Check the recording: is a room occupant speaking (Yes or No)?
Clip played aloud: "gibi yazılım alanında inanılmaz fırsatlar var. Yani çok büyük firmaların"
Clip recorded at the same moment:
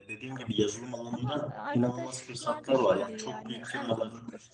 Yes